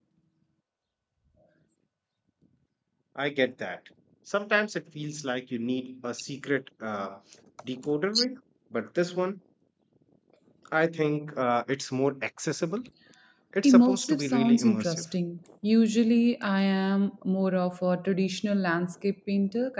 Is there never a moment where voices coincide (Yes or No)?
No